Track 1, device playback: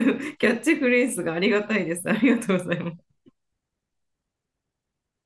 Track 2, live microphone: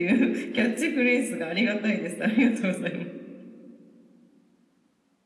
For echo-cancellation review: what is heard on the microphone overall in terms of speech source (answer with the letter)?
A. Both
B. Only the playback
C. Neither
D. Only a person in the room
B